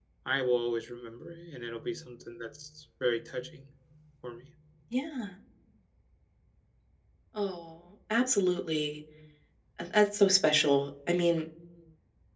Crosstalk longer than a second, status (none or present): none